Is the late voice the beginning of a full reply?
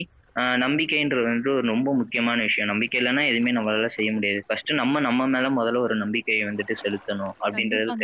Yes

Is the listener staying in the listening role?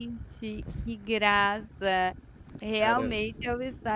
Yes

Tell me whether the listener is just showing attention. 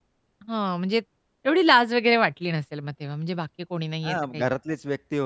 No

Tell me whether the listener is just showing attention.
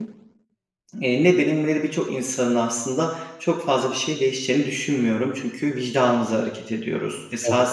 Yes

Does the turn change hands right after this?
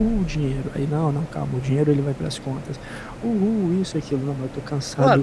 Yes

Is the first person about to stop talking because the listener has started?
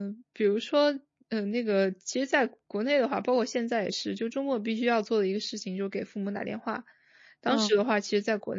No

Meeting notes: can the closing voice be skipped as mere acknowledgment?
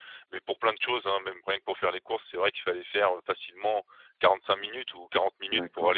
No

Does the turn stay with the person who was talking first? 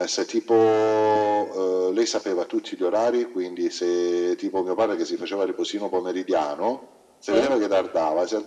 Yes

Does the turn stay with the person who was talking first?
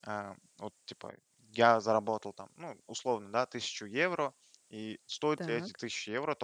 Yes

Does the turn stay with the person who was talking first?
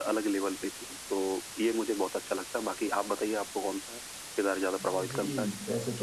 No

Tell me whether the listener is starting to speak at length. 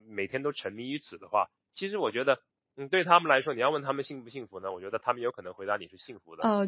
Yes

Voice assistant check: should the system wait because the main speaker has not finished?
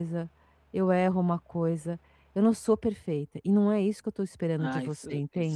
No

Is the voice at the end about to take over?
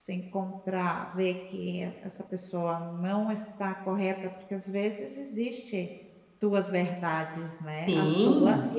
Yes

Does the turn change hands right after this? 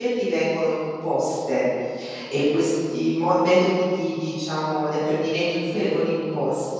No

